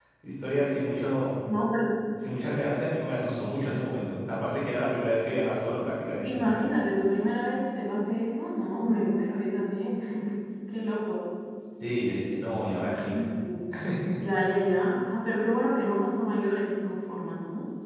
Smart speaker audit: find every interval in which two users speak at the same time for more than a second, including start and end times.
none

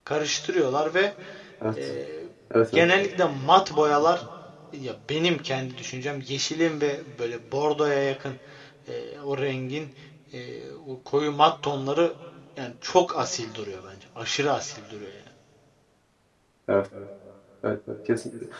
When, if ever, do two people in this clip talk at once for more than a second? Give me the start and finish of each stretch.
none

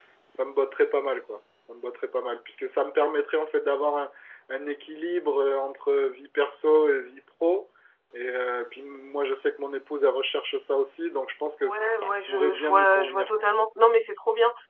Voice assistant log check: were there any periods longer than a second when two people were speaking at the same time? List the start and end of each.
11.6-13.5

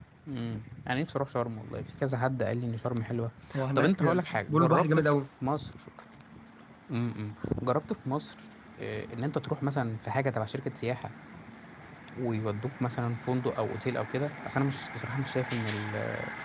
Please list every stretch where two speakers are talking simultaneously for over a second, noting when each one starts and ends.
3.8-5.1

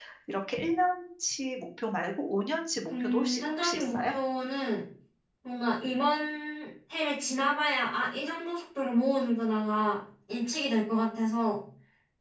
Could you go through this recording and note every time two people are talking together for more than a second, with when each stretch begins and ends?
2.9-4.1

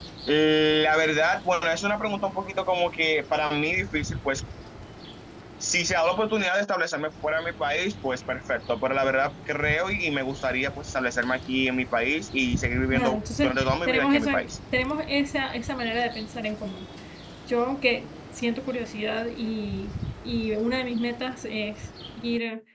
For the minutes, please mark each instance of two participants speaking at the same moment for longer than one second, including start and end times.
12.9-14.5

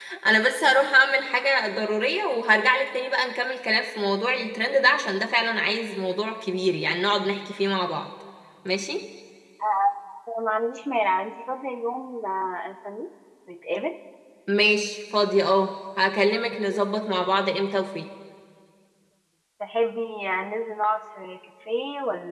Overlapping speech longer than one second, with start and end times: none

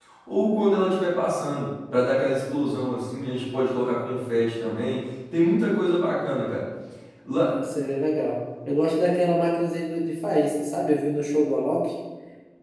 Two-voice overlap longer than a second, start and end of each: none

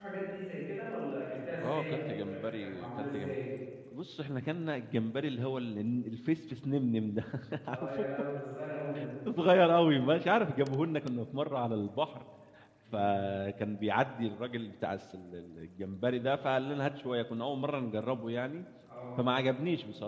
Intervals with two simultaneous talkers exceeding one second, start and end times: 1.6-3.4

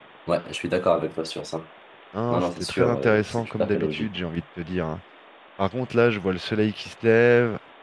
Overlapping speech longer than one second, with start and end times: 2.3-4.1

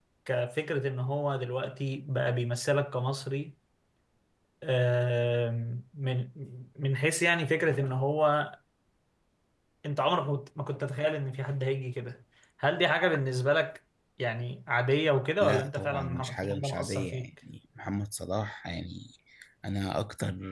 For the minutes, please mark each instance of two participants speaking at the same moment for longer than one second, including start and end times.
15.4-17.3

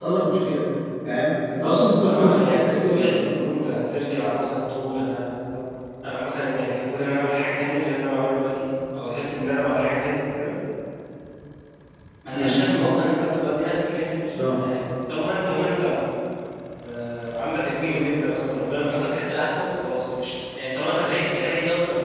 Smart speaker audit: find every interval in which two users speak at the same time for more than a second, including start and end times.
1.5-3.2

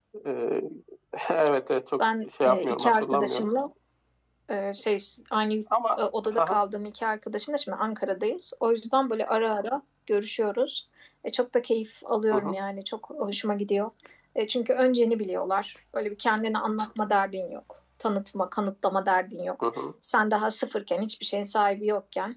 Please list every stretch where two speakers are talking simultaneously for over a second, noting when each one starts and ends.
2.0-3.5

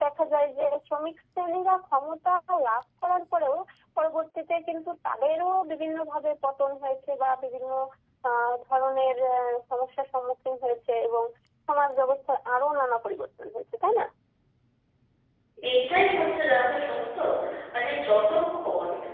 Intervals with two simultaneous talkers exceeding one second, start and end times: none

